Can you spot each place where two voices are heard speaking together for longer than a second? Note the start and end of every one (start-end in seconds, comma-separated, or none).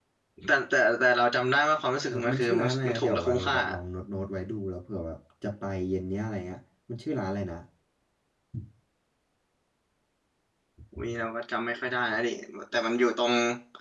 2.1-3.6